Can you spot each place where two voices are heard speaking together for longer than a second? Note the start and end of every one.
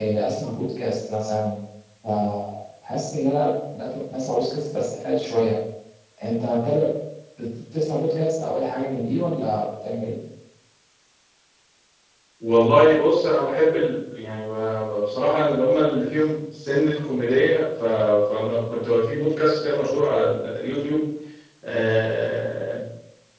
none

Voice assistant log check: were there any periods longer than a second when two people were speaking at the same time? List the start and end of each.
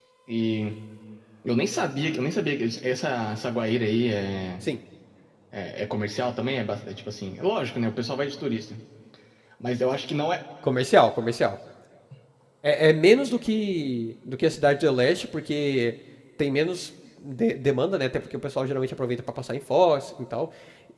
none

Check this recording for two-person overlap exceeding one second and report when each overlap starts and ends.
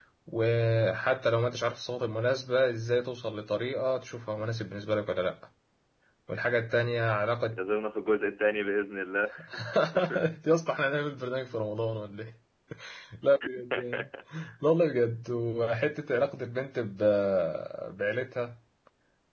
none

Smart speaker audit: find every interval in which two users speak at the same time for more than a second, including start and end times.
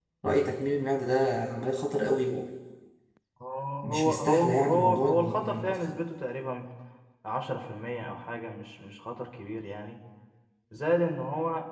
3.8-5.7

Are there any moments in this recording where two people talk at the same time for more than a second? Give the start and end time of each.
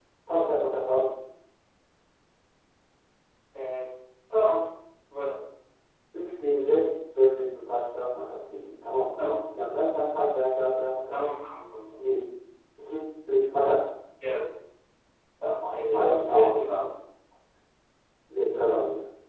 15.6-16.9

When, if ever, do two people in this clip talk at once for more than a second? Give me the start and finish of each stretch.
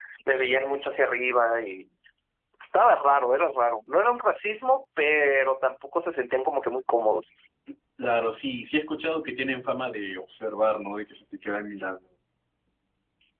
none

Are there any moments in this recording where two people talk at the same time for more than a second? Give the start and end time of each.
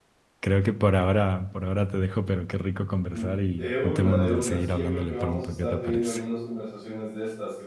3.1-6.2

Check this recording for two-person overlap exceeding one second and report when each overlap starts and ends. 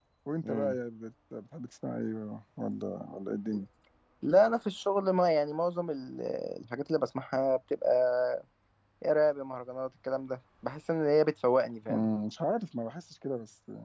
none

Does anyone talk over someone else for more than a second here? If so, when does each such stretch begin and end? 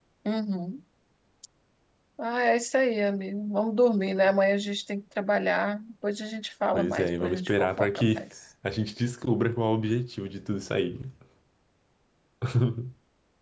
6.7-8.2

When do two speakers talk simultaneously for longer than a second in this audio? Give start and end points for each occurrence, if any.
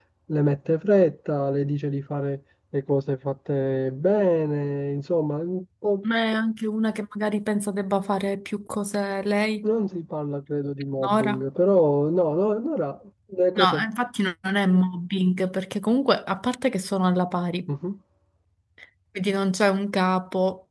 none

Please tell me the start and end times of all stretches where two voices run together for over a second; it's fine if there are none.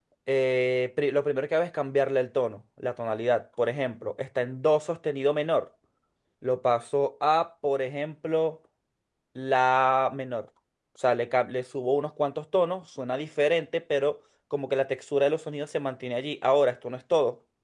none

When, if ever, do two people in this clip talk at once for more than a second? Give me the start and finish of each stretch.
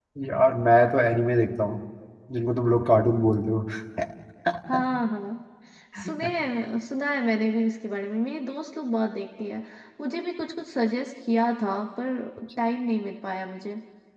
none

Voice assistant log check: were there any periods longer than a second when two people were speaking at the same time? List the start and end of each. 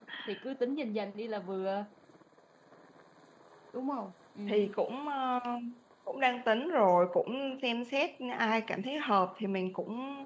none

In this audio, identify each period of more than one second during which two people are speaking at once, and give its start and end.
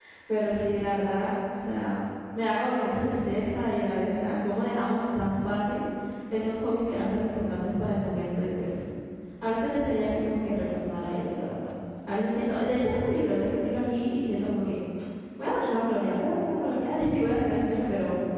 none

